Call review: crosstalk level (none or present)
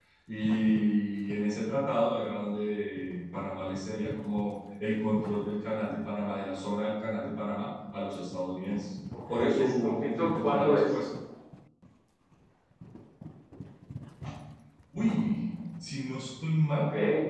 present